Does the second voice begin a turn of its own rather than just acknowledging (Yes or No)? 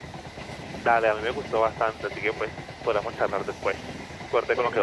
Yes